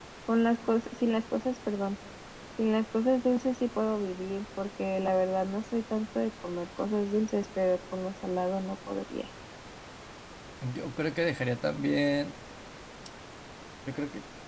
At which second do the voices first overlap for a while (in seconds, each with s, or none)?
none